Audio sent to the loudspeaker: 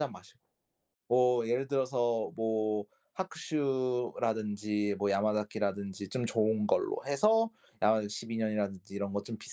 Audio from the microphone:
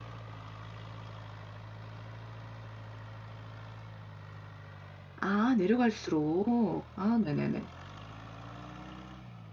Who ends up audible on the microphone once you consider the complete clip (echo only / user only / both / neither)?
user only